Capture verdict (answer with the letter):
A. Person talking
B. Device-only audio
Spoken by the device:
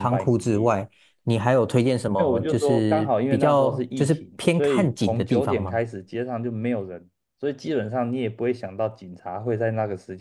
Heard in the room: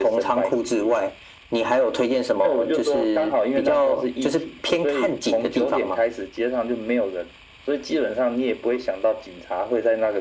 B